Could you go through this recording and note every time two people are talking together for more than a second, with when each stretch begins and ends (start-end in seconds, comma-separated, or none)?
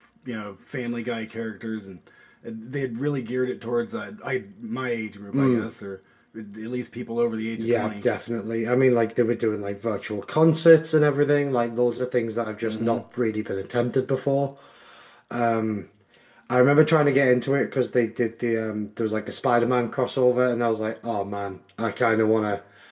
none